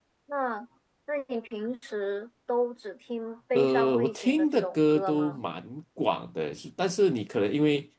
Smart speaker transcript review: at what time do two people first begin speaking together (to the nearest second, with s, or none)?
4 s